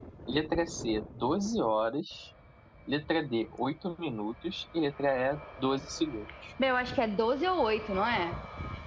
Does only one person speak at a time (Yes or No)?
Yes